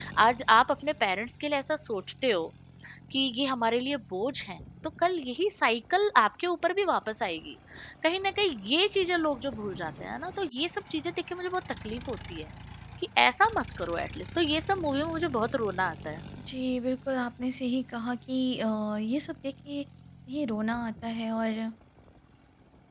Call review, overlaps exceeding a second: none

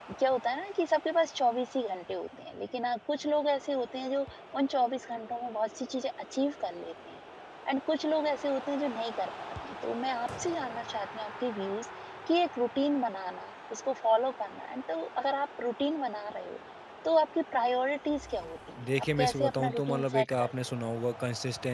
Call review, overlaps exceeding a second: present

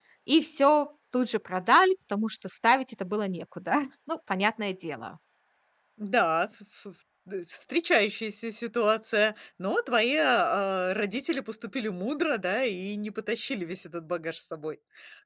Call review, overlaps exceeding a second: none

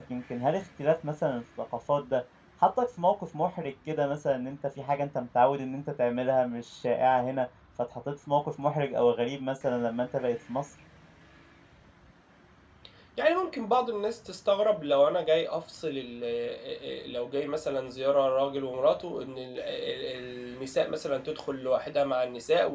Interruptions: none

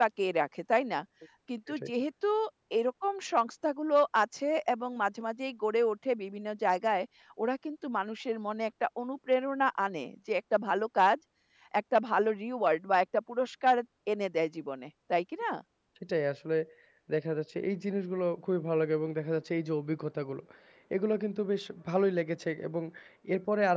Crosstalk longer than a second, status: none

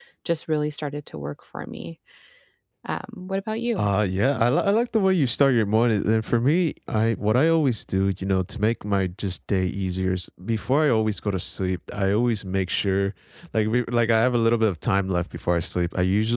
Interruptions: none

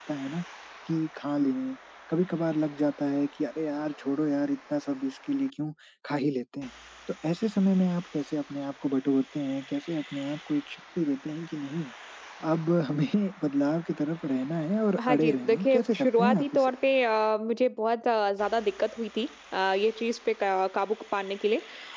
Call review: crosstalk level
present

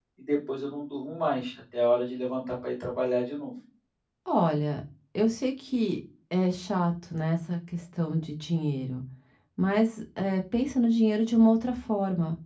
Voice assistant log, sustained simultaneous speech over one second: none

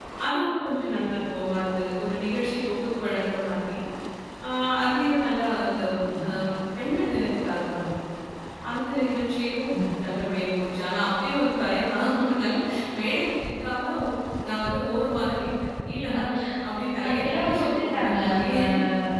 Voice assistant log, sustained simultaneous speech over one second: present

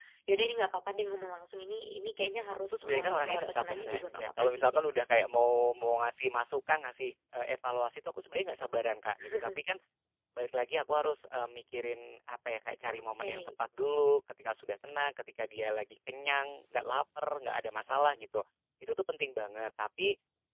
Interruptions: present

